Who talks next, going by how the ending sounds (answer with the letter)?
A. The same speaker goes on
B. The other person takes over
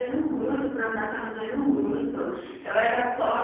A